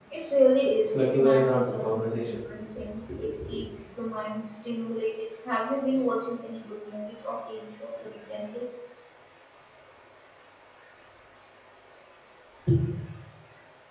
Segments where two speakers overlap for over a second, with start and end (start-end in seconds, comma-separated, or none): 0.8-2.4